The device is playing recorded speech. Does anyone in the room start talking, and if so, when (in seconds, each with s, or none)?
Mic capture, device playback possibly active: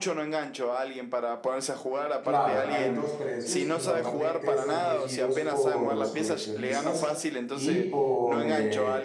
2.2 s